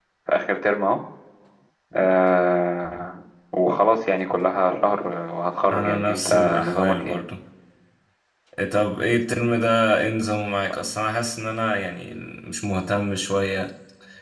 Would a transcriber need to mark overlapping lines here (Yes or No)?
Yes